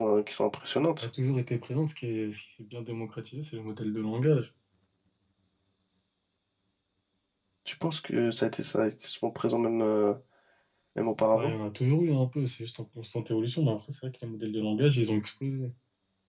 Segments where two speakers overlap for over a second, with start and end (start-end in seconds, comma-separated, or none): none